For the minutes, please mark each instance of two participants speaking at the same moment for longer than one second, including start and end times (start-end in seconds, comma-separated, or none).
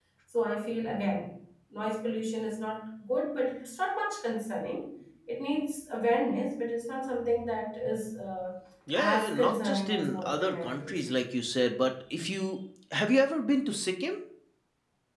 9.0-11.1